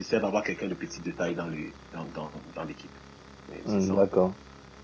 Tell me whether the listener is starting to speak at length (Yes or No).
Yes